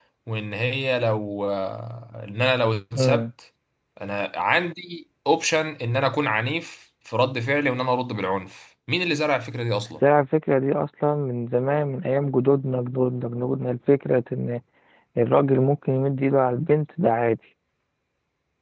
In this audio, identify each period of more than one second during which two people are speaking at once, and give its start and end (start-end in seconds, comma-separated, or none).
none